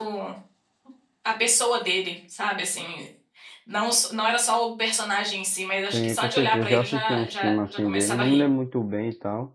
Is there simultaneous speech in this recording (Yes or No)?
Yes